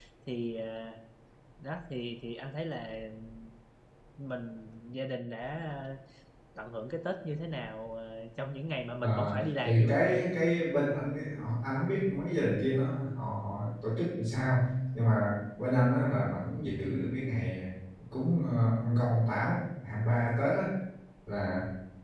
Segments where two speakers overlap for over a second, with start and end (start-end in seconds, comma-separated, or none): 9.0-10.2